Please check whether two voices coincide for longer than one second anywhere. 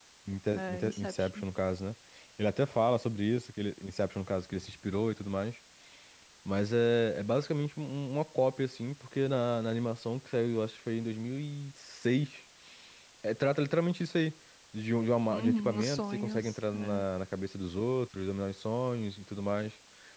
Yes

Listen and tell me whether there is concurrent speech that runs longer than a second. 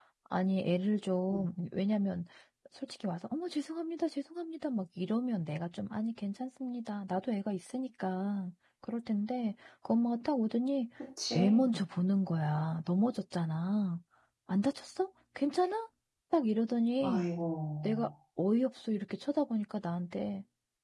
No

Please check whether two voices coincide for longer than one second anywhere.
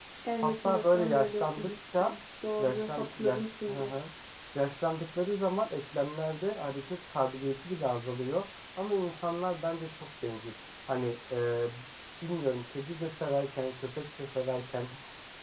Yes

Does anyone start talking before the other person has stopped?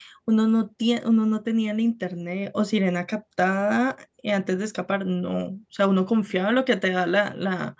No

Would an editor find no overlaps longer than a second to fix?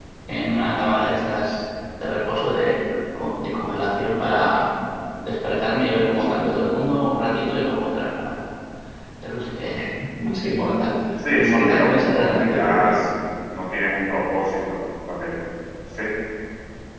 No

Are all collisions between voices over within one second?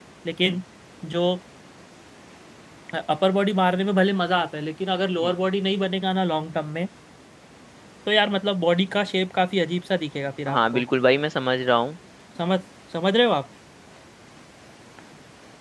Yes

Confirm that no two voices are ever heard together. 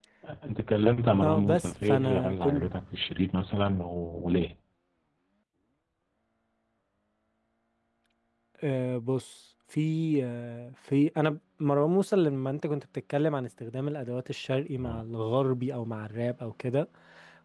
No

